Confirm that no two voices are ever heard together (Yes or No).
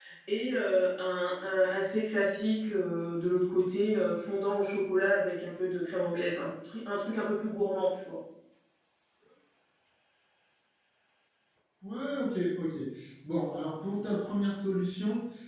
Yes